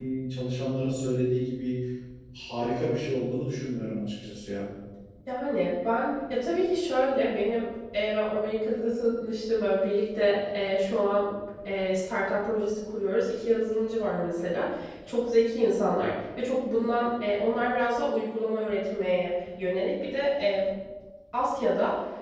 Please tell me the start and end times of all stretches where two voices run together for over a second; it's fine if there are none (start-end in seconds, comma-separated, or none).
none